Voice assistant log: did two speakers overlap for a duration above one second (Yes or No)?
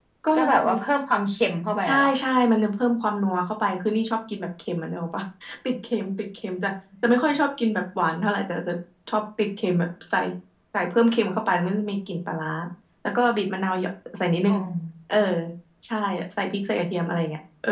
No